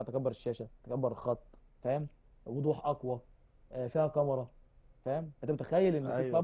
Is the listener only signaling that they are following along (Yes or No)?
Yes